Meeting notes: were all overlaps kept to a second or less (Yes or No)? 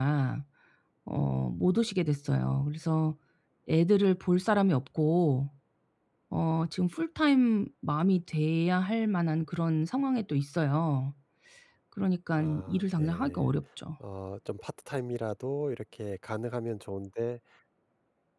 No